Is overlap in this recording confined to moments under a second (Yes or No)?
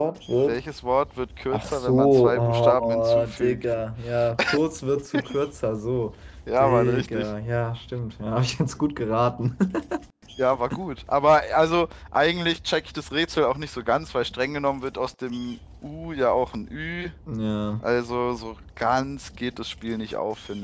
No